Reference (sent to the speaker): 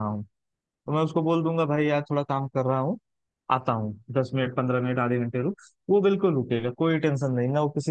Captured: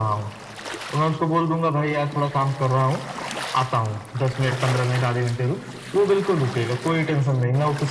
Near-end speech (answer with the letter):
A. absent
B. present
A